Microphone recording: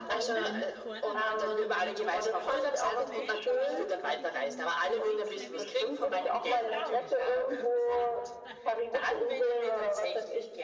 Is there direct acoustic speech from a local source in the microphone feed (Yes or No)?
Yes